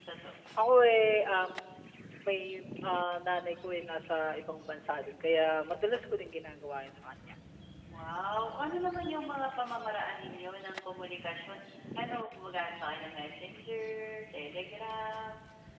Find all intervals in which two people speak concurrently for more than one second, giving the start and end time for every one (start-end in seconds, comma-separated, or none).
none